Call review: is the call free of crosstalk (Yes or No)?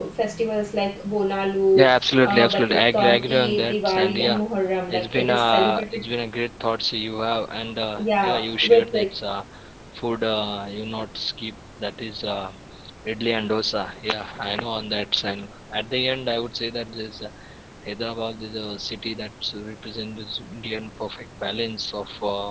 No